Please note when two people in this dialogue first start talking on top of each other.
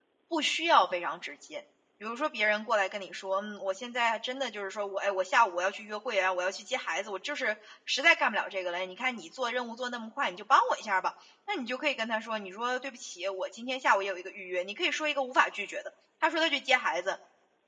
none

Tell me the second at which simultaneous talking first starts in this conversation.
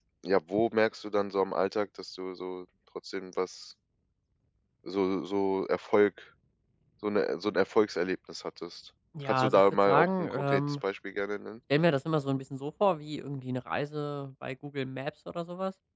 9.2 s

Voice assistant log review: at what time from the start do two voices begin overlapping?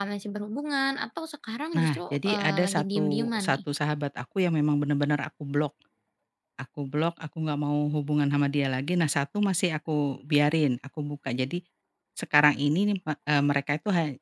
1.7 s

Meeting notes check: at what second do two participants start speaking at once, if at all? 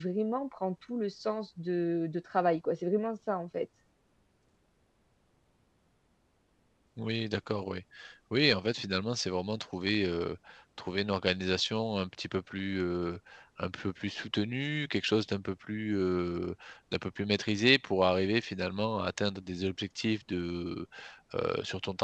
none

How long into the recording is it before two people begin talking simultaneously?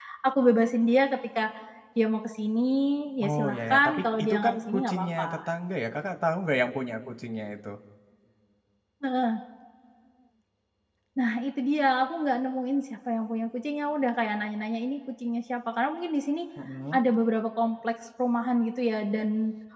3.2 s

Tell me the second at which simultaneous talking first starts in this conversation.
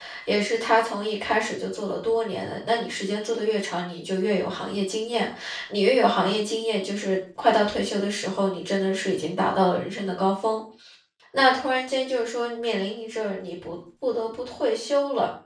none

